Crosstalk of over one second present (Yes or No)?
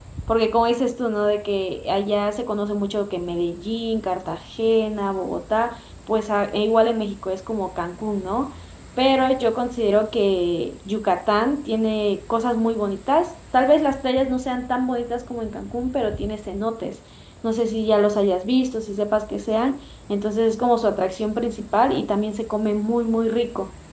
No